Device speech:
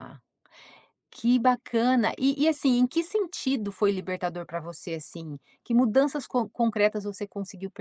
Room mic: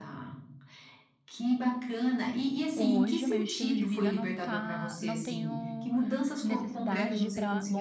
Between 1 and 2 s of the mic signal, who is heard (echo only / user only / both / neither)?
echo only